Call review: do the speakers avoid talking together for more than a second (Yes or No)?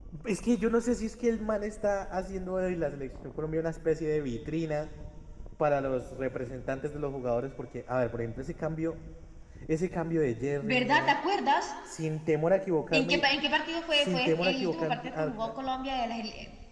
No